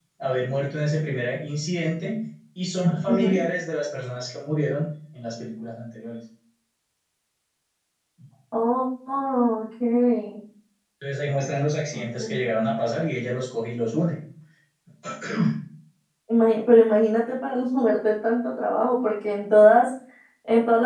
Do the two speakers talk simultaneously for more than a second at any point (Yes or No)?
No